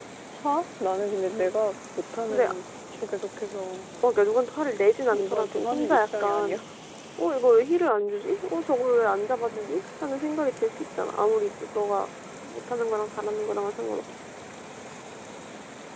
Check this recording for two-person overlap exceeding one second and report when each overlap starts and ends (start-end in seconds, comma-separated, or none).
5.1-6.6